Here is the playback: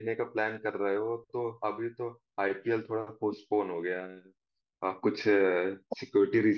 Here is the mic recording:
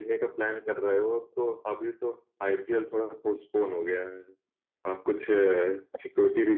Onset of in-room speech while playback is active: none

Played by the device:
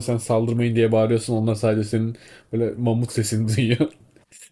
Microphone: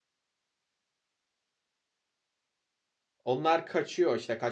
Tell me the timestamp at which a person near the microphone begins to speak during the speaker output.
3.2 s

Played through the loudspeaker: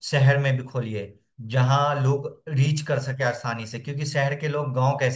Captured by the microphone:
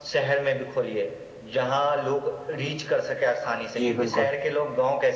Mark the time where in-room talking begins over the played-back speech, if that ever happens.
3.8 s

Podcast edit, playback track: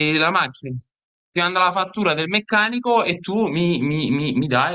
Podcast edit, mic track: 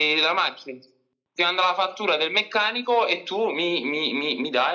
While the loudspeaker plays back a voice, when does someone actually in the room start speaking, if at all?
none

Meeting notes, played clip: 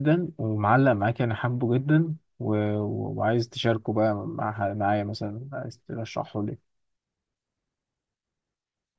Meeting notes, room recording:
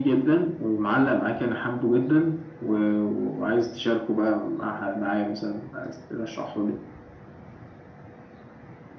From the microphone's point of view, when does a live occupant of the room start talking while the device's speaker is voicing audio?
none

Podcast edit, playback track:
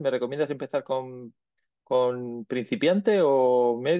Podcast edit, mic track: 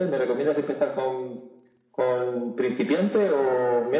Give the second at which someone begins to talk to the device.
none

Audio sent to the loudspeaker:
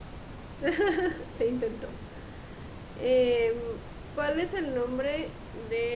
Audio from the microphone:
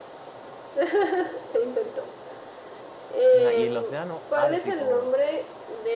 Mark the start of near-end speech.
3.2 s

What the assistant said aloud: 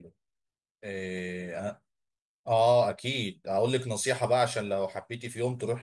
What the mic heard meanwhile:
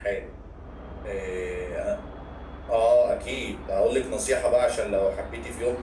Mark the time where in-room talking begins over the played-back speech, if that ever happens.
none

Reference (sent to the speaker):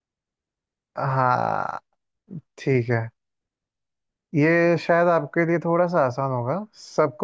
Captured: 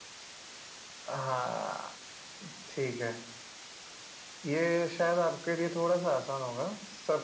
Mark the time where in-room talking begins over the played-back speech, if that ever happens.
none

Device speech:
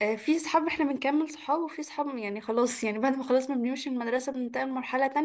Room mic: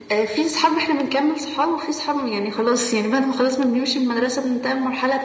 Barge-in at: none

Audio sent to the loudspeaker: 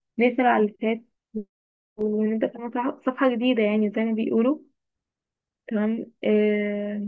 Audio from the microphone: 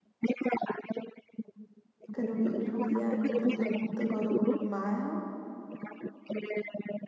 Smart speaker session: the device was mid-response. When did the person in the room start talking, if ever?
2.1 s

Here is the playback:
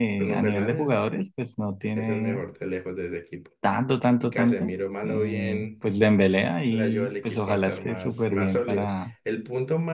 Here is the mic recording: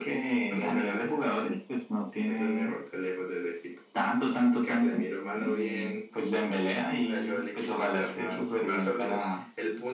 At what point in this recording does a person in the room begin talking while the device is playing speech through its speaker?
none

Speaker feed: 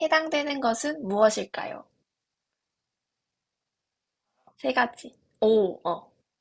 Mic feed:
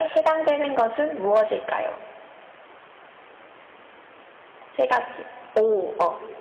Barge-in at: none

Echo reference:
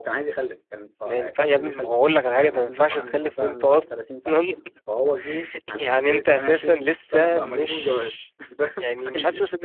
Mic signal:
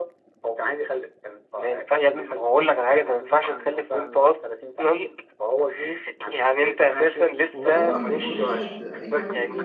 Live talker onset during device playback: 7.6 s

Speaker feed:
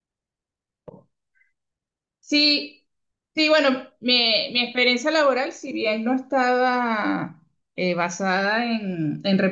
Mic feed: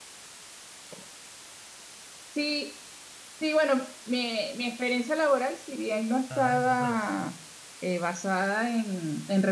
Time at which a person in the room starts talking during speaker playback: 6.3 s

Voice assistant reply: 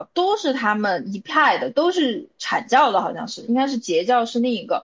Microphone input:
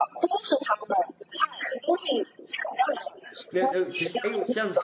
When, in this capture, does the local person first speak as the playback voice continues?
3.5 s

